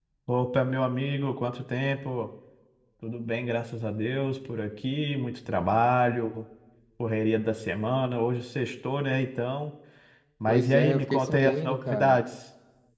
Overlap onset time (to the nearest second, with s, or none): 10 s